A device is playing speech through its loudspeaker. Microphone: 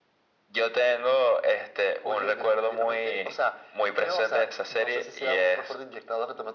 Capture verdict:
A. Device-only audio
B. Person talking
A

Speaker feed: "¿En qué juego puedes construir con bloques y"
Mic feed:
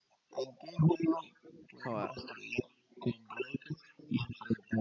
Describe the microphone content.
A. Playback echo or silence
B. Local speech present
B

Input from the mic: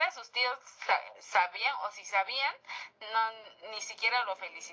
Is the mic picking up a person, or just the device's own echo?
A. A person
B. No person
B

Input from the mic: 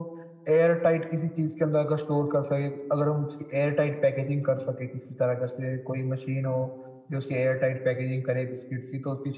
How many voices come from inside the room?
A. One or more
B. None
B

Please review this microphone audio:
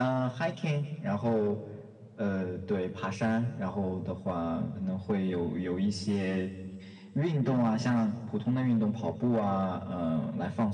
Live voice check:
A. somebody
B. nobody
B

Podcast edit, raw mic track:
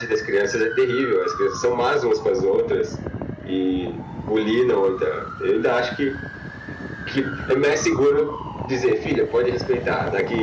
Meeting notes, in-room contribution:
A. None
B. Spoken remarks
A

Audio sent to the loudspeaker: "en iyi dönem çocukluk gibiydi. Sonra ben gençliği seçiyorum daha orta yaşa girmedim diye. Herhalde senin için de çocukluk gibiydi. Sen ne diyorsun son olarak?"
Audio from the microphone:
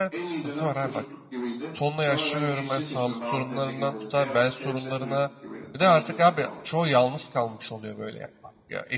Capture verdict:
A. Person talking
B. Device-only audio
A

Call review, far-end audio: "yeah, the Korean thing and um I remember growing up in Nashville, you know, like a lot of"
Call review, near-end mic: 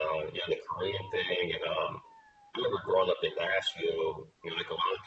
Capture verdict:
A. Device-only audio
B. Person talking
A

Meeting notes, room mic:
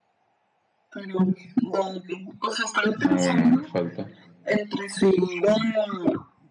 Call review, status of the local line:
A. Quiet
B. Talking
B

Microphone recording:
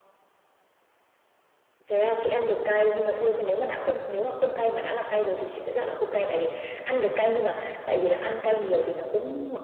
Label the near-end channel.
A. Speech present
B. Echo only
B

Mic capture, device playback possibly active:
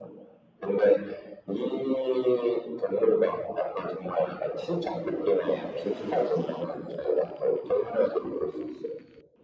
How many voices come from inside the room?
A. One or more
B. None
B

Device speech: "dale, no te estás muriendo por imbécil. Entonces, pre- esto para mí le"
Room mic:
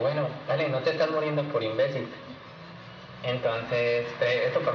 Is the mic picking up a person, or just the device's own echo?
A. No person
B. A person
A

